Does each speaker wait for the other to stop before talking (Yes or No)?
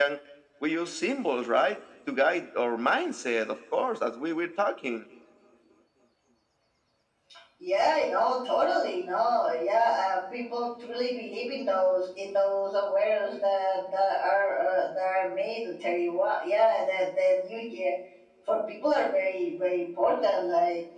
Yes